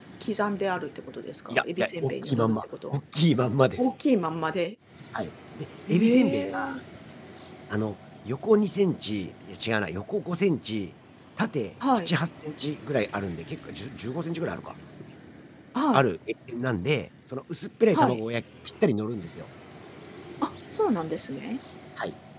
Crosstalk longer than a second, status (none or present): present